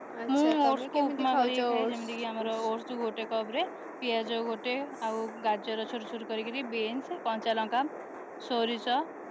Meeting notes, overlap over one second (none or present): present